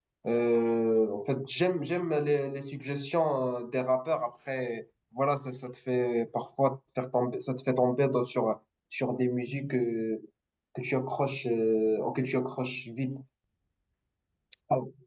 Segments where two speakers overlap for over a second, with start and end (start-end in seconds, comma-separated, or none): none